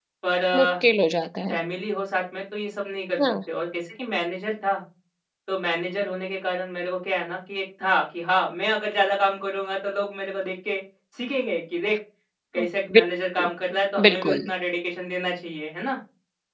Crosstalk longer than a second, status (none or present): none